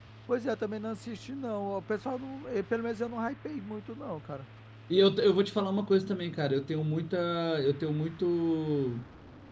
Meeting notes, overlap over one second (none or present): none